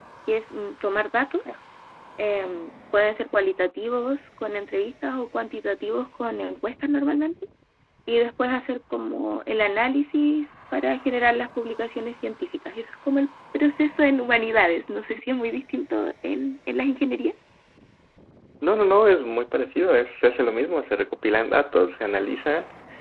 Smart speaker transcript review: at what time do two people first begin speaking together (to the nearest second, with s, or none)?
none